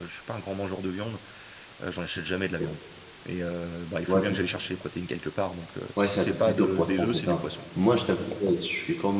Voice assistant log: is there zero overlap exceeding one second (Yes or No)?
No